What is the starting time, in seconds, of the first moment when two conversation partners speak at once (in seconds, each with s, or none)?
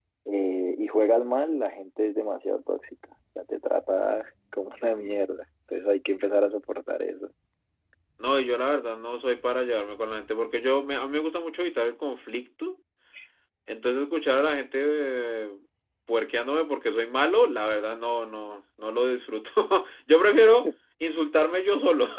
none